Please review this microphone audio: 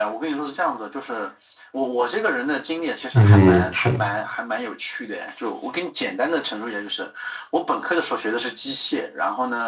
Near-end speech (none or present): present